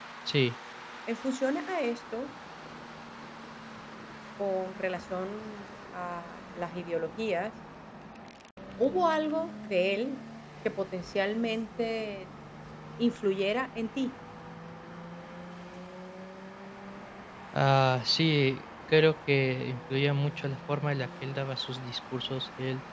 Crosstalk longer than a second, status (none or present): none